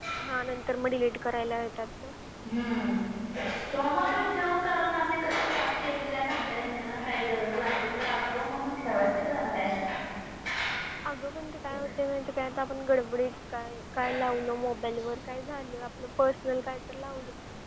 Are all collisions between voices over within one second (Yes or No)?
Yes